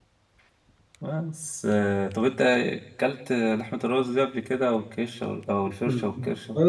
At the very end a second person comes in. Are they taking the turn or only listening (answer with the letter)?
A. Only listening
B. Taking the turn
B